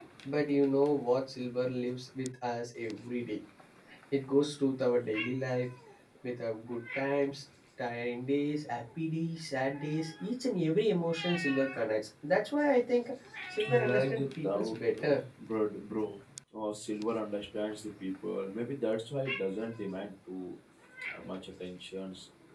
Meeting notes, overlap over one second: present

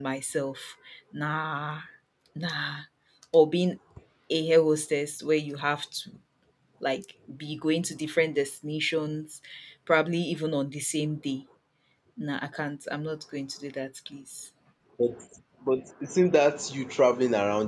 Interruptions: none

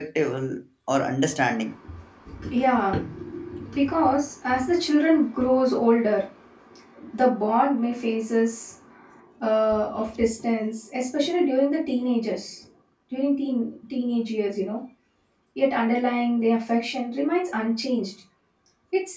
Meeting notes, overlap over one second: none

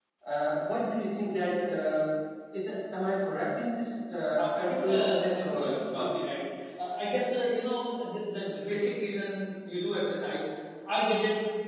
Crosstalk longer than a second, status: present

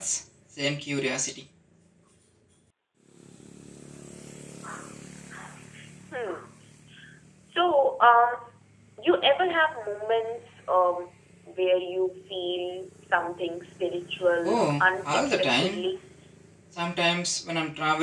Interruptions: present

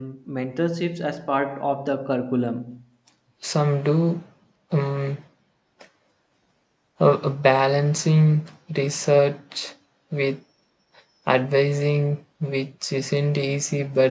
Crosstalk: none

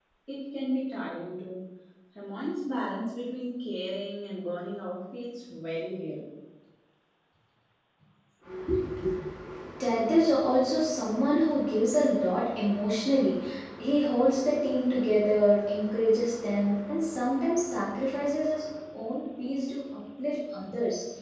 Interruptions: none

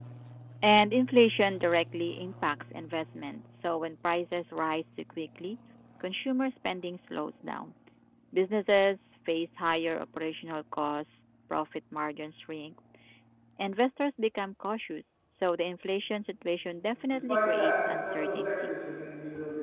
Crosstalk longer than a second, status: present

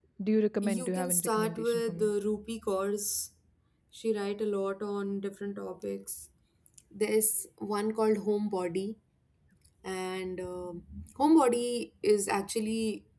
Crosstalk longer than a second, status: present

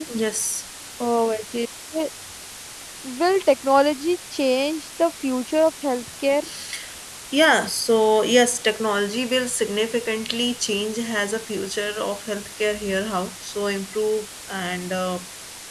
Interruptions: none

